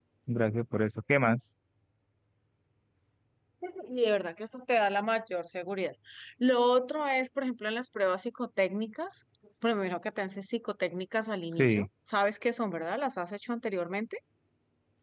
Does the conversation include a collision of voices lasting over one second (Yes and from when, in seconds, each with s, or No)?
No